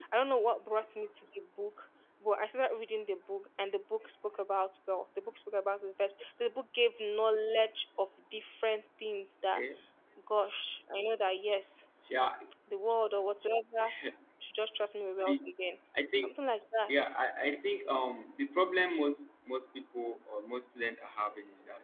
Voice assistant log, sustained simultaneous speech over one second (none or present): none